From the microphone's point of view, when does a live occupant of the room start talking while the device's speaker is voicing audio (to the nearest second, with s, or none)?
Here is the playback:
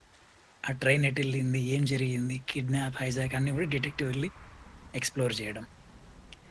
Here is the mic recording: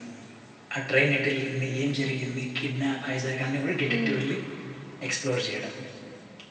4 s